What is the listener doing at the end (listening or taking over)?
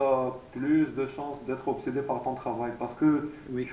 listening